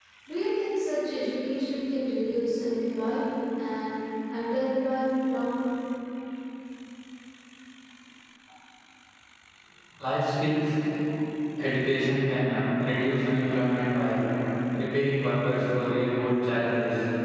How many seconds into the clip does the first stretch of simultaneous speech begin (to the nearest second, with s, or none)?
none